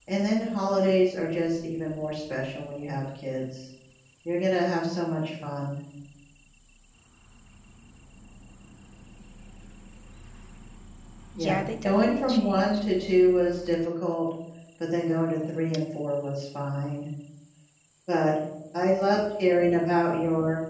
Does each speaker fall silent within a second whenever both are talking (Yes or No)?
No